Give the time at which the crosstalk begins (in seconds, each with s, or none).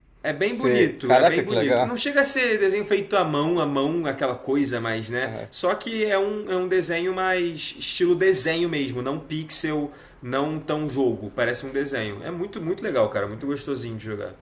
0.6 s